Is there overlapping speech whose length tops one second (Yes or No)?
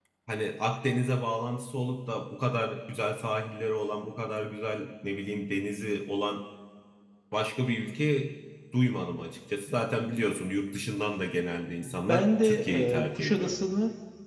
Yes